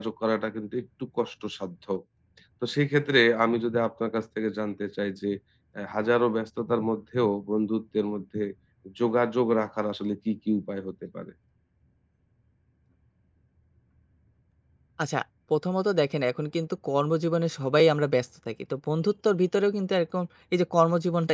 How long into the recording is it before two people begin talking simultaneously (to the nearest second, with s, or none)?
none